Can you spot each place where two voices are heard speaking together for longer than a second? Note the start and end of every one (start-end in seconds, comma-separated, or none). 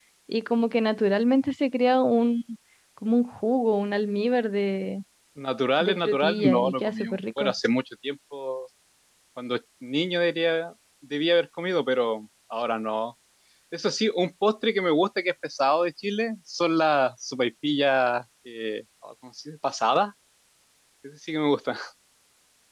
5.8-7.5